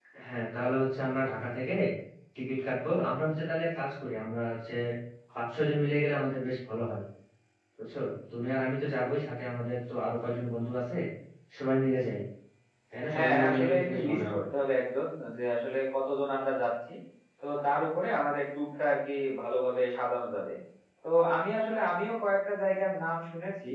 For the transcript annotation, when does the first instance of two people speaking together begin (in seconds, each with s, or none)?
13.1 s